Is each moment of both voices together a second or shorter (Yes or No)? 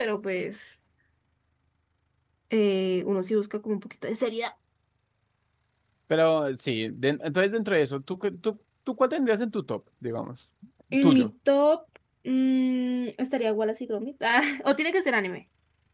Yes